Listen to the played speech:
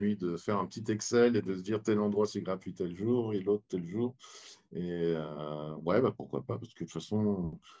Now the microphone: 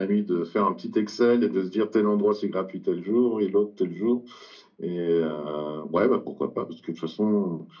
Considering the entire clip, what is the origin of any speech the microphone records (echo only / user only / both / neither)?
echo only